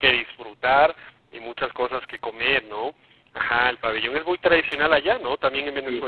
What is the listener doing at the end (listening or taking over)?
taking over